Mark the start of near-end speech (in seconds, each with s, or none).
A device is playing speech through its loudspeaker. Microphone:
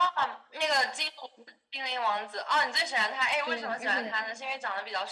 3.4 s